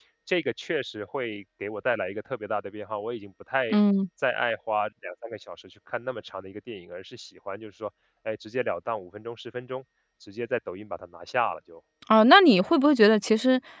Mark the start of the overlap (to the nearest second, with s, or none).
none